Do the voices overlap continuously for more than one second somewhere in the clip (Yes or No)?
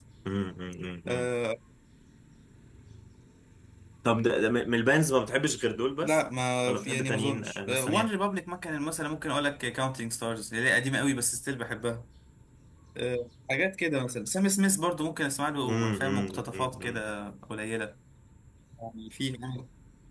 Yes